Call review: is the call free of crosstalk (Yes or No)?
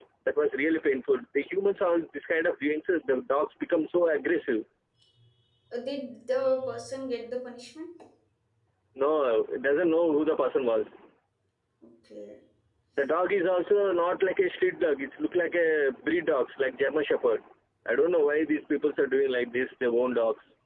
Yes